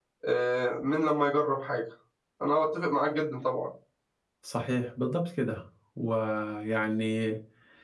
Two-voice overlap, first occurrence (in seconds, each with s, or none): none